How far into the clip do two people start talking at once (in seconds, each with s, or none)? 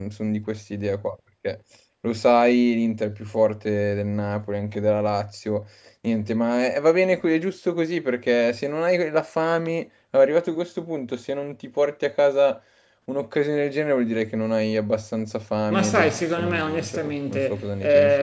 15.7 s